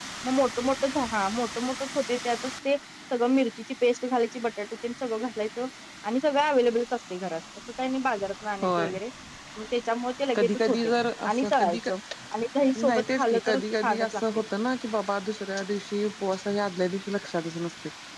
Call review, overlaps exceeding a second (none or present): present